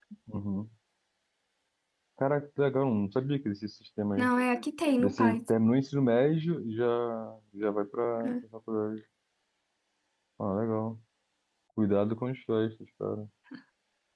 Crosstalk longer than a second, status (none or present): none